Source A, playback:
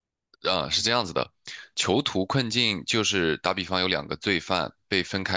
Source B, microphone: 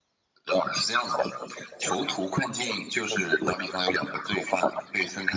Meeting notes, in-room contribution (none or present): none